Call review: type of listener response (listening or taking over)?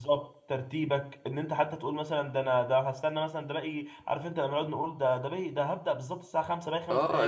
taking over